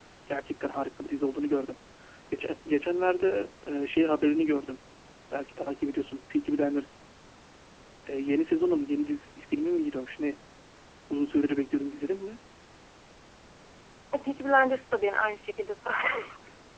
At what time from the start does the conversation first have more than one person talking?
none

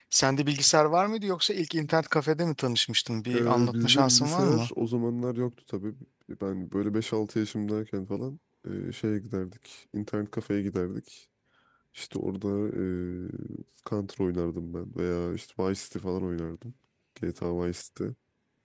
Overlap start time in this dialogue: 3.3 s

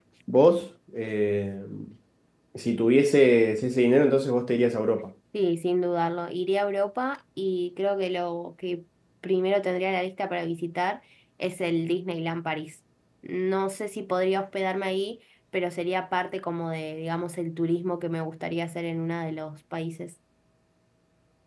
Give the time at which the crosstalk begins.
none

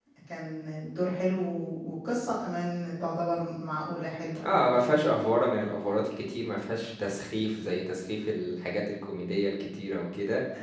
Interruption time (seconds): none

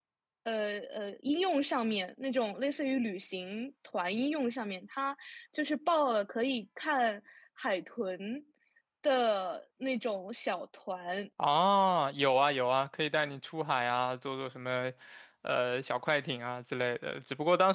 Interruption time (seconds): none

